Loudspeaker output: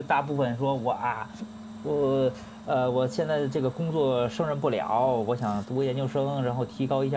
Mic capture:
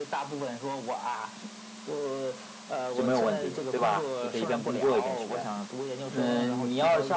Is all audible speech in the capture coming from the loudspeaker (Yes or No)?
No